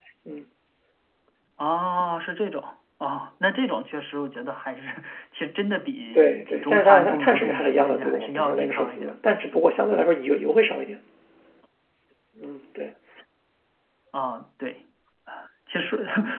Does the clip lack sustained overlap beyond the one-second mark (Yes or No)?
No